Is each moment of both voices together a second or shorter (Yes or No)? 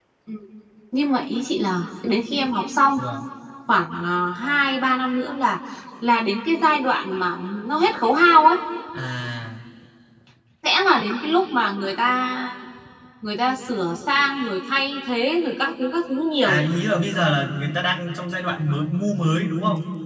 Yes